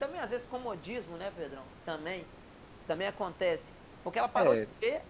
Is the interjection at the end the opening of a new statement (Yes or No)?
No